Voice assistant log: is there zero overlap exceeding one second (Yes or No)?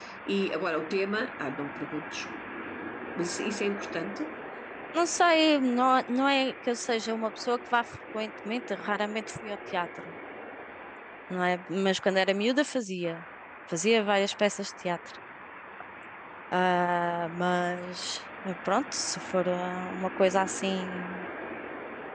Yes